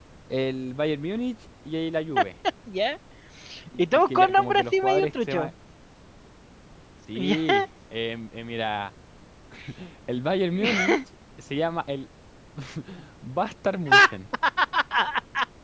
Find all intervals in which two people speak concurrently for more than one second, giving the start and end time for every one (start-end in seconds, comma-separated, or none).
3.8-5.5